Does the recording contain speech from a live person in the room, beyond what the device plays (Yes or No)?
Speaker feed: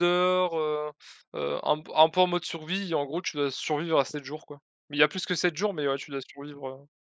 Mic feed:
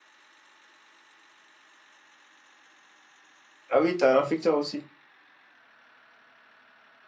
Yes